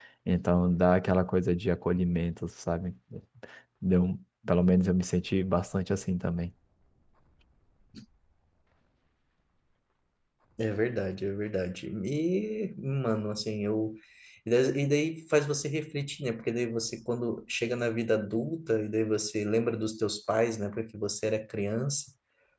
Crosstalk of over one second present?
No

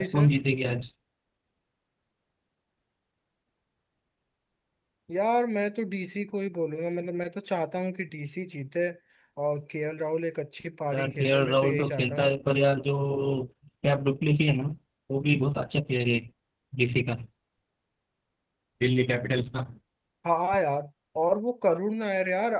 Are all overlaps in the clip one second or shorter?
No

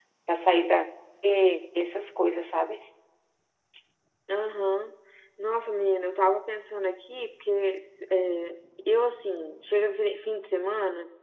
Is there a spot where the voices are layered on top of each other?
No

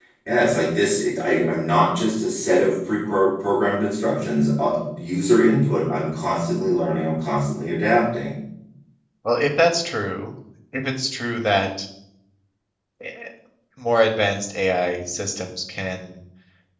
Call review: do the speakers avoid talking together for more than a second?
Yes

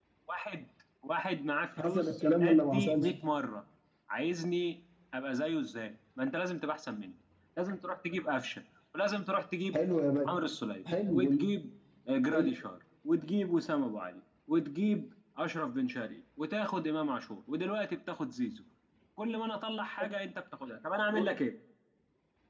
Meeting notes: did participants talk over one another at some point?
Yes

